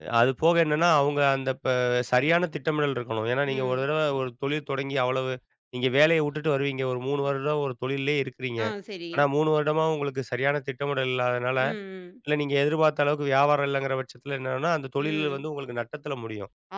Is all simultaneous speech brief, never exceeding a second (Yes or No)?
Yes